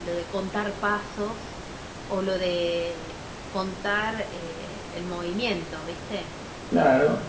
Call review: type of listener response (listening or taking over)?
taking over